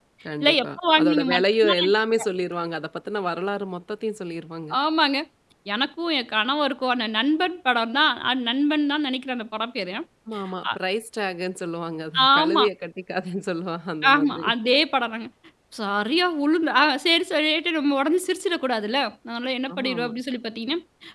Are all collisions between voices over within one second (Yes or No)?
No